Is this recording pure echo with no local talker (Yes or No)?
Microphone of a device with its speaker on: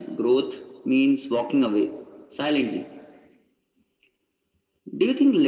Yes